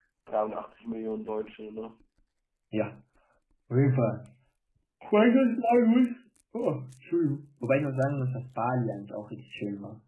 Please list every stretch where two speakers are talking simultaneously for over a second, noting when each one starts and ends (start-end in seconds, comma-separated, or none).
none